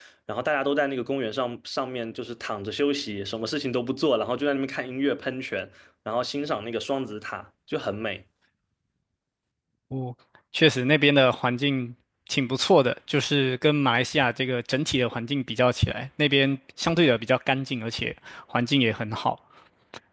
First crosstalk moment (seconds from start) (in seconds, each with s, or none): none